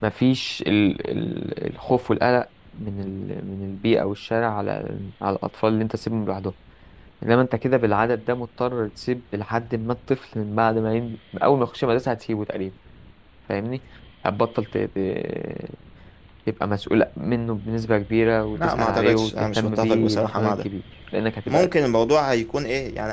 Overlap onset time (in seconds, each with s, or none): 18.5 s